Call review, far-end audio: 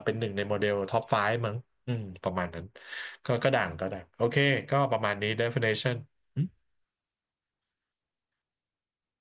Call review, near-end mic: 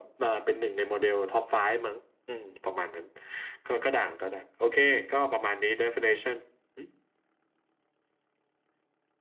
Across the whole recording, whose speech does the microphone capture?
echo only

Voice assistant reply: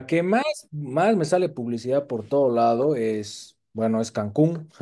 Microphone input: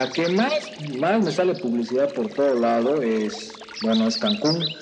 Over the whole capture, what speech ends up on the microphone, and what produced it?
echo only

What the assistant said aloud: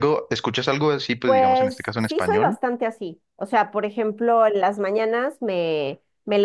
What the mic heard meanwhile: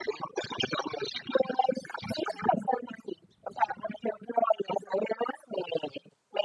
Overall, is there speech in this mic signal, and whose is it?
echo only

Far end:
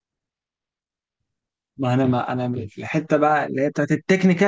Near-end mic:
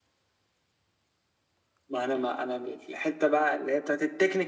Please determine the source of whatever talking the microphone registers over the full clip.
echo only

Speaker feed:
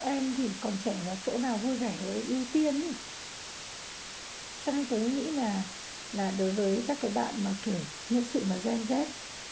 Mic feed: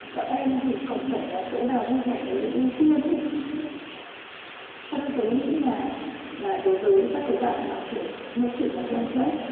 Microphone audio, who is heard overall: echo only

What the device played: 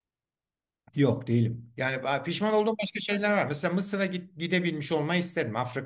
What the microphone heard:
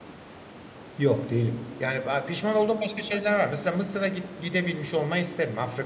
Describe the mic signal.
echo only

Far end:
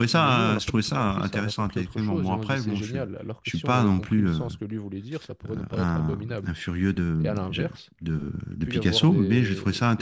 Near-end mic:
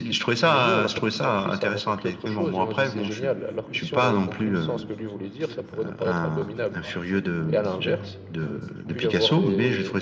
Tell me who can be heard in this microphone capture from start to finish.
both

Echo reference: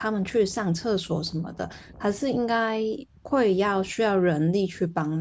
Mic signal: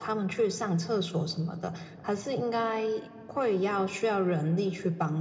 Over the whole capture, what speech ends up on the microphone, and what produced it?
echo only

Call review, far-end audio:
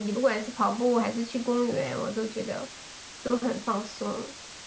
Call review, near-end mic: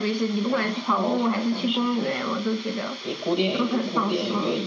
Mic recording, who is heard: both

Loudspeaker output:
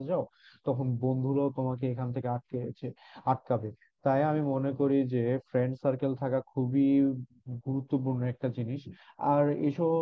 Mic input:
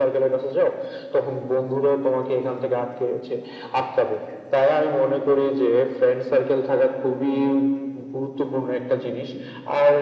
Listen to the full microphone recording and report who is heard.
echo only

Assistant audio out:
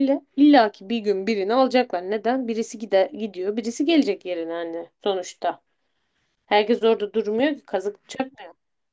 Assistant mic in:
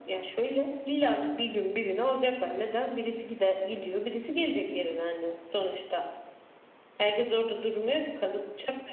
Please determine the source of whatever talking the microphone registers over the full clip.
echo only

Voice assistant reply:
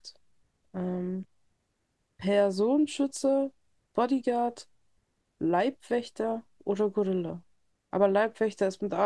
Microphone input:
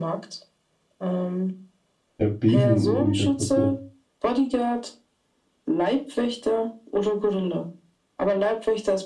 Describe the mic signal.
both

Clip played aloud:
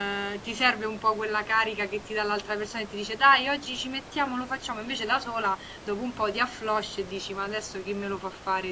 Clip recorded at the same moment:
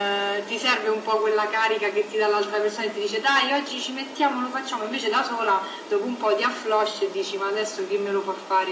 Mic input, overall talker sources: echo only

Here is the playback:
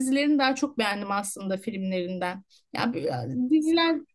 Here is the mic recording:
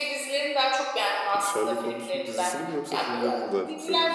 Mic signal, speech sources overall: both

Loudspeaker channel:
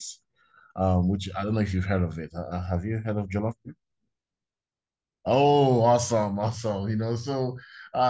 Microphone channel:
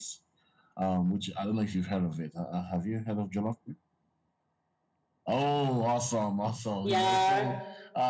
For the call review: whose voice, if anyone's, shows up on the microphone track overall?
both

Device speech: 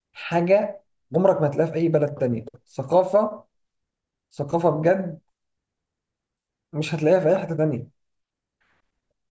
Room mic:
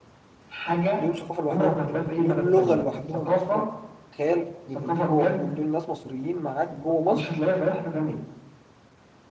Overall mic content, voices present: both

